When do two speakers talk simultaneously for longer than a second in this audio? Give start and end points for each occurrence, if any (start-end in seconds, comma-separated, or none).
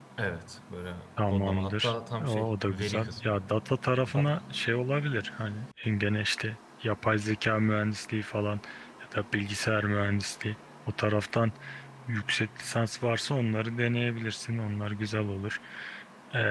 1.3-3.4